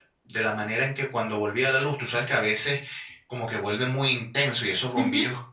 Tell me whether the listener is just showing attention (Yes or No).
Yes